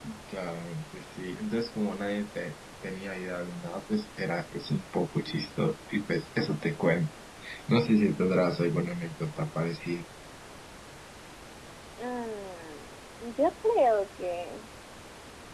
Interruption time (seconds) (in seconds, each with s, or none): none